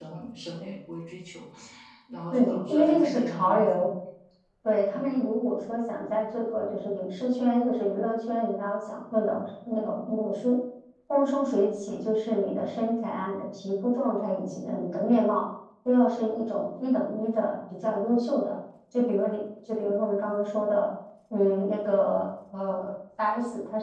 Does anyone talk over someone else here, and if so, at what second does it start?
2 s

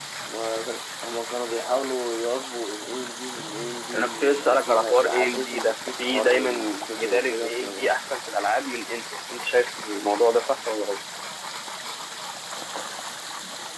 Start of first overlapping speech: 4 s

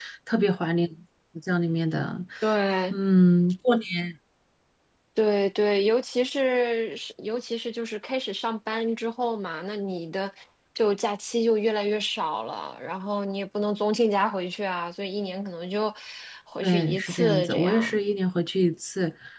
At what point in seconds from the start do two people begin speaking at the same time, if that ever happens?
17 s

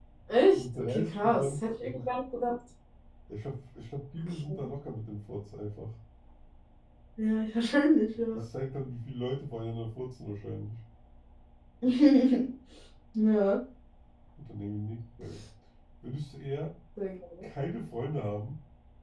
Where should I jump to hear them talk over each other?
1 s

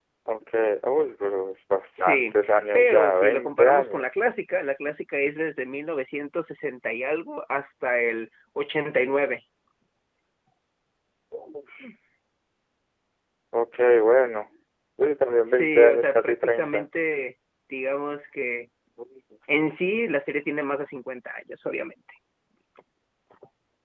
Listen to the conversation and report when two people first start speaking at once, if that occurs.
2 s

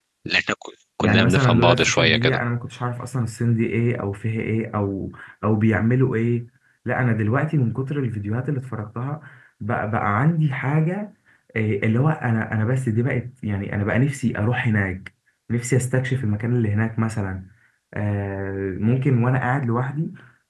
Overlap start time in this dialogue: 1 s

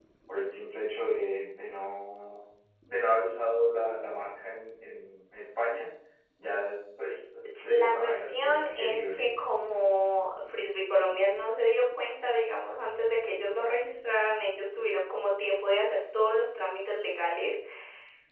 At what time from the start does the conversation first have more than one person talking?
8 s

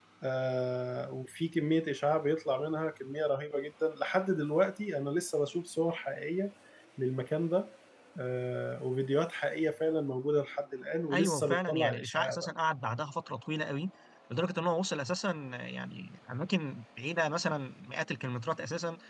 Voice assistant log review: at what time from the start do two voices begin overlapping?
11 s

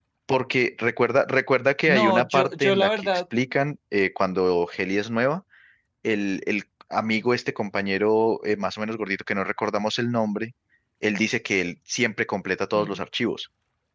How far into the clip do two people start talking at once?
2 s

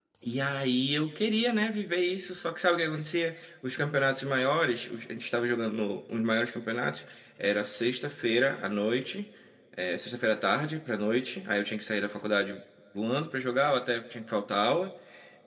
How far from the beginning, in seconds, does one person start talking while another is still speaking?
none

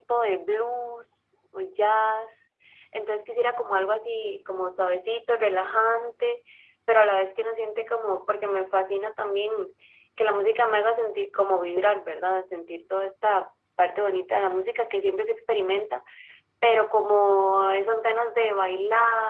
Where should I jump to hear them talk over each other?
none

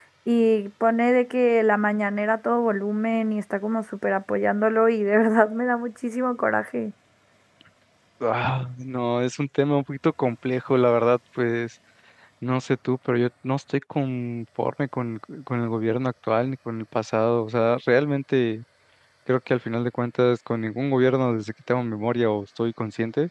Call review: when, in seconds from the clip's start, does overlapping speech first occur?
none

